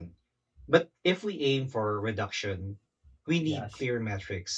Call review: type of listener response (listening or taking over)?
listening